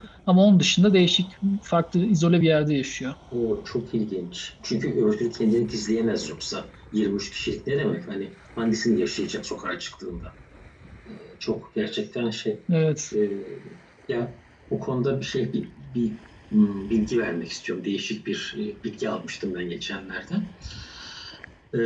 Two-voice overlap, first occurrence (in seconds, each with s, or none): none